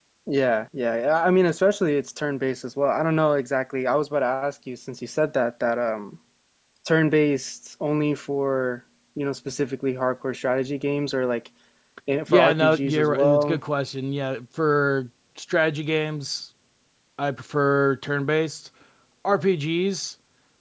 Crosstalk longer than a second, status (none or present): present